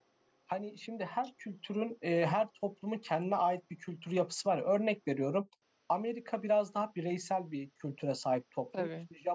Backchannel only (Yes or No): Yes